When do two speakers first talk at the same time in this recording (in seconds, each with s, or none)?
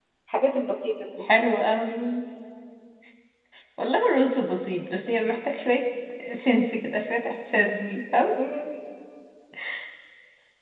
none